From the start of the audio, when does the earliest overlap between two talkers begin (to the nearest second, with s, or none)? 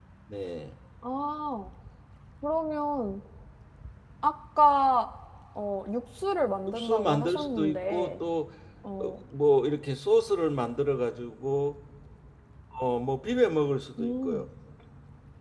7 s